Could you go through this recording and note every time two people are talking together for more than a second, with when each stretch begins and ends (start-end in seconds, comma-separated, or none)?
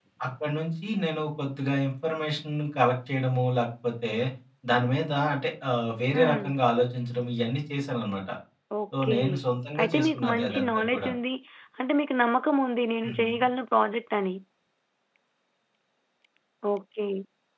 9.8-11.1